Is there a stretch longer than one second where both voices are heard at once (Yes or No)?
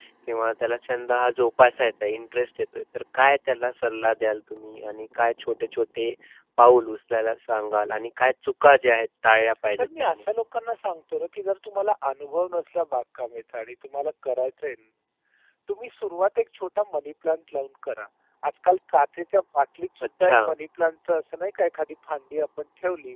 No